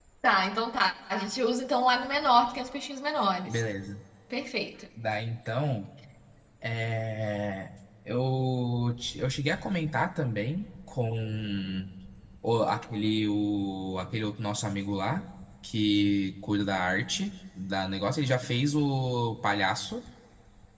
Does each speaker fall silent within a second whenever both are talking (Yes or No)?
Yes